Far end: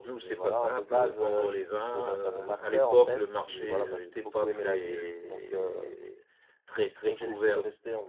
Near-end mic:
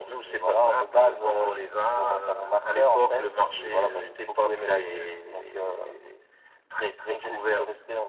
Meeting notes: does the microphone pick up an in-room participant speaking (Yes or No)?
No